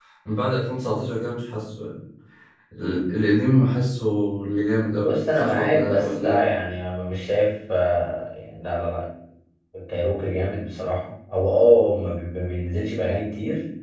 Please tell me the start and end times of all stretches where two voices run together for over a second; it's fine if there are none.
5.0-6.5

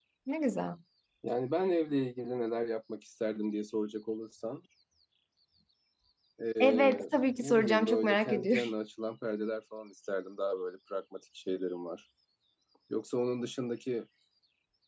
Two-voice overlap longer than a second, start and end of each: 7.4-8.6

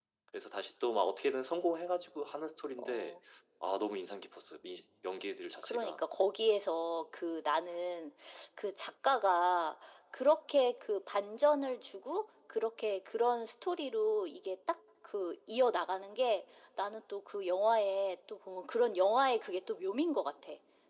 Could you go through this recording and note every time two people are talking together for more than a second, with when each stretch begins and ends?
none

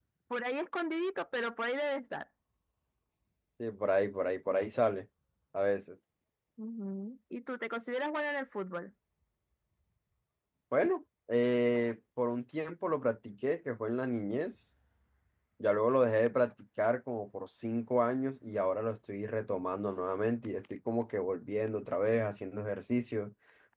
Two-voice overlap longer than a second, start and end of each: none

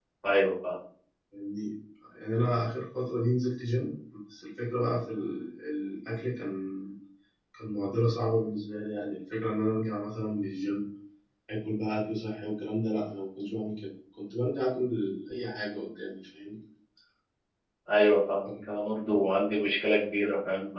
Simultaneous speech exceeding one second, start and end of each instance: none

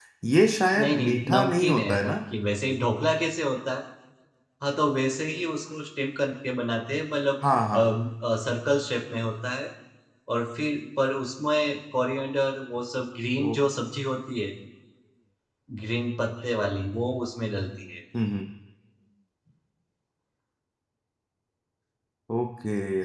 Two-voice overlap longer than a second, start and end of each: 0.8-2.2

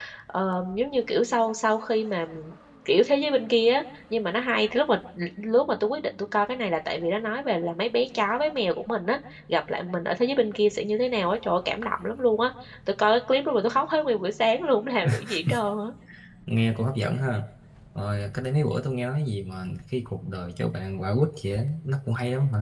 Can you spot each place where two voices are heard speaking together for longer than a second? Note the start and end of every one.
none

